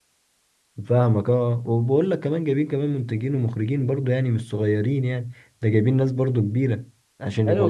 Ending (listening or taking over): taking over